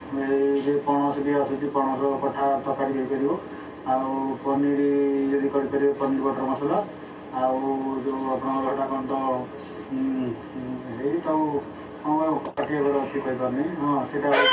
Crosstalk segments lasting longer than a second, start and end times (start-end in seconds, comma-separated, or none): none